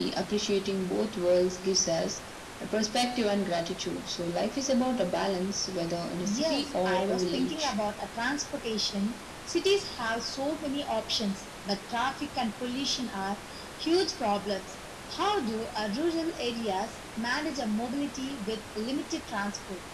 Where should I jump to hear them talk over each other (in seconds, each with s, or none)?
6.2 s